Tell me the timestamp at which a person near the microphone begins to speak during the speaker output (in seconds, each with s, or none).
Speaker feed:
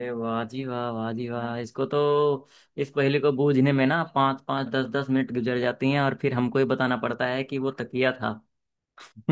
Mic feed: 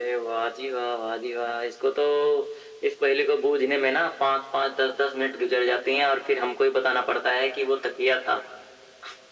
none